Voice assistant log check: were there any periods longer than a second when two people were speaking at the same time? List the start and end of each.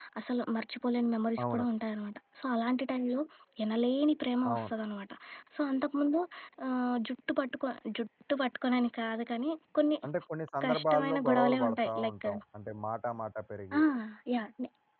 10.7-12.2

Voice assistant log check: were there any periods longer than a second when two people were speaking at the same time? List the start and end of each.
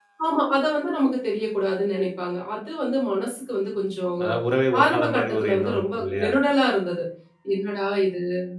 4.8-6.3

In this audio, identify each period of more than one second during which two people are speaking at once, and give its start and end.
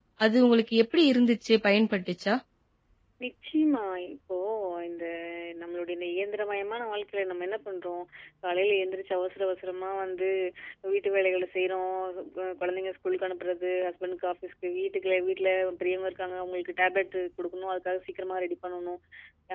none

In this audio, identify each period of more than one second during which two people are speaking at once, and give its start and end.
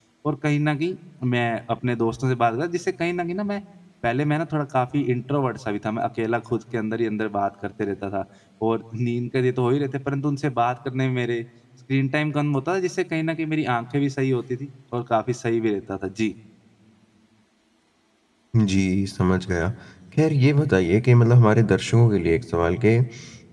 none

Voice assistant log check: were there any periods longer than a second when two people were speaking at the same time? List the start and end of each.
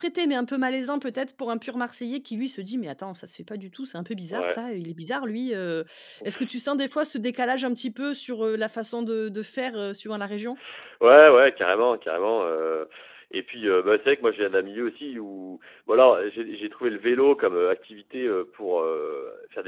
none

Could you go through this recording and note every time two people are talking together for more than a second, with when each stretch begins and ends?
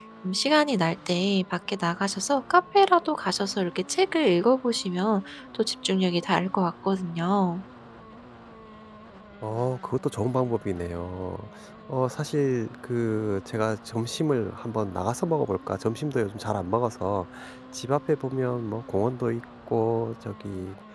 none

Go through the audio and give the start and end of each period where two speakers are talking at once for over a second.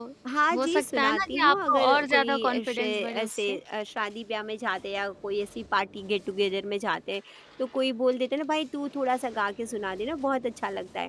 0.5-3.6

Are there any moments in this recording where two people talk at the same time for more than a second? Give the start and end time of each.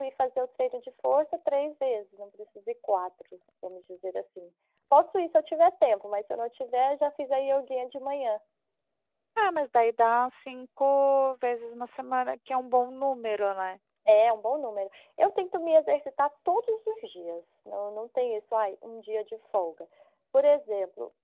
none

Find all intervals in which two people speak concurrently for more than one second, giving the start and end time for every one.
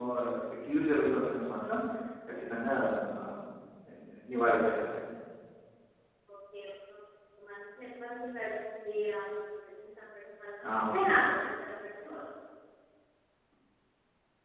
none

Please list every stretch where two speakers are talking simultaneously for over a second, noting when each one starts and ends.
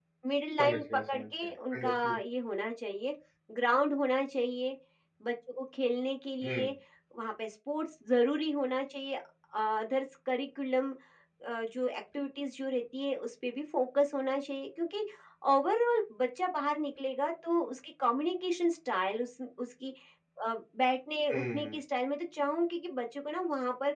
0.6-2.2

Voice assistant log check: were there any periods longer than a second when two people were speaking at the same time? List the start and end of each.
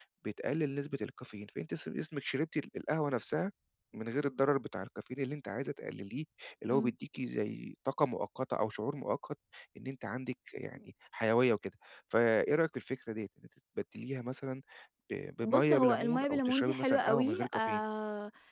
15.4-17.8

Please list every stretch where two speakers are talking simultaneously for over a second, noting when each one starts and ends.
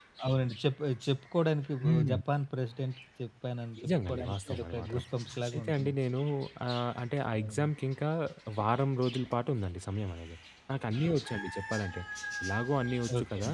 3.8-5.0

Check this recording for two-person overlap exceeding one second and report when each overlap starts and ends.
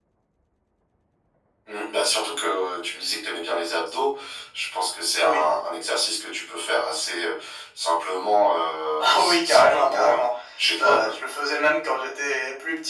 9.0-10.2

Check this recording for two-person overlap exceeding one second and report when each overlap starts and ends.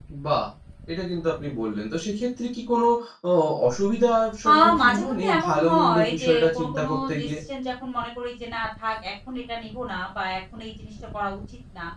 4.5-7.3

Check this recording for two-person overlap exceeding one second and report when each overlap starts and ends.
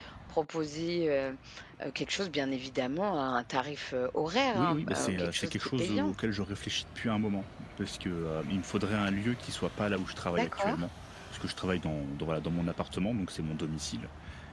4.5-6.1

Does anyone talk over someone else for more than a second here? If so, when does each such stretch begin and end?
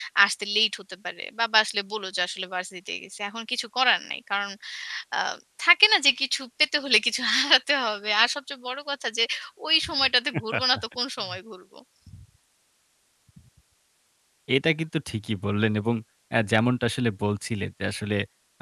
none

